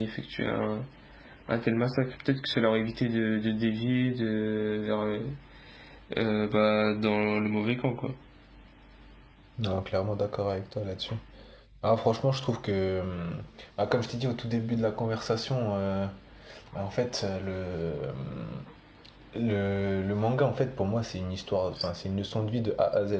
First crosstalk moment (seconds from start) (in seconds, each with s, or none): none